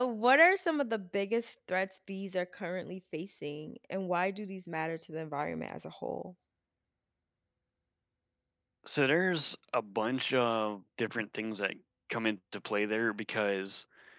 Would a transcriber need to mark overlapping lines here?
No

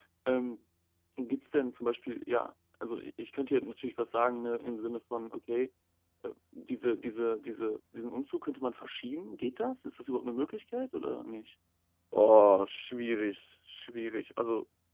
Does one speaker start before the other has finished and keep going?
No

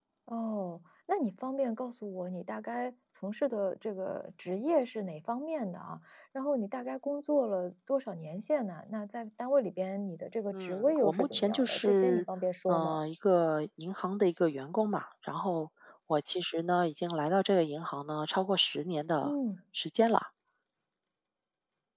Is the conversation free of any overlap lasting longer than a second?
No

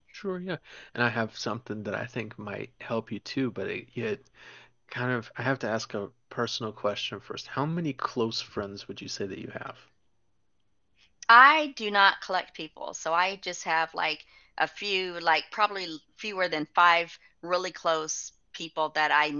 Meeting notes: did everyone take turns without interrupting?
Yes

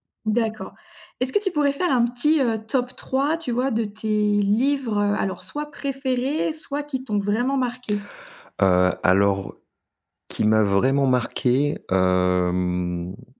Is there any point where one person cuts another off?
No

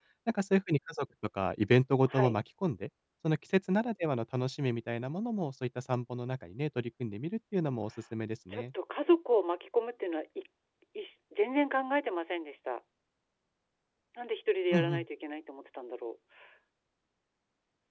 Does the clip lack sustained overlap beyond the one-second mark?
Yes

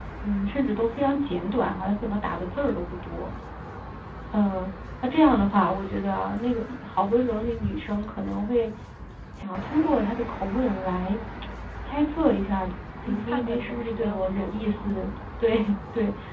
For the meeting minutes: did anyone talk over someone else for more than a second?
Yes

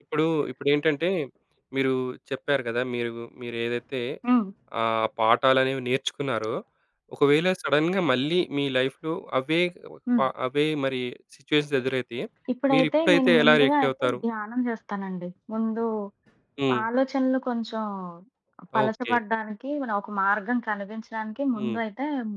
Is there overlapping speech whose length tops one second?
Yes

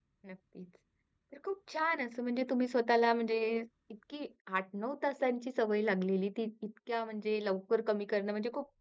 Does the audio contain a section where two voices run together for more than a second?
No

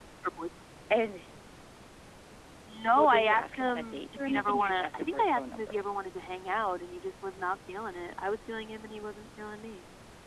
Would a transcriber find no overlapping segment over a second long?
No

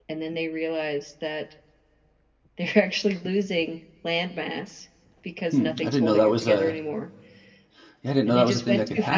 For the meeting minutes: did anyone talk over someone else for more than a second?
Yes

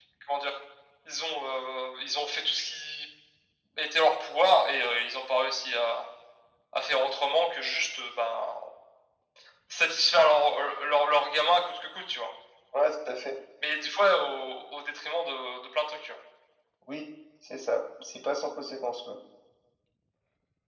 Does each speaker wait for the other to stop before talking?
Yes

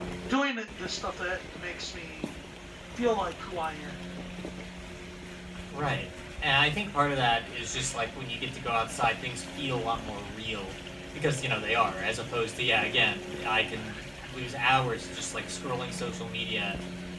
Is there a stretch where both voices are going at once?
No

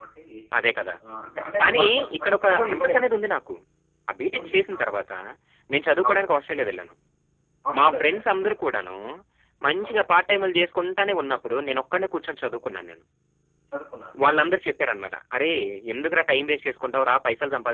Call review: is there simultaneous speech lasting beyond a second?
Yes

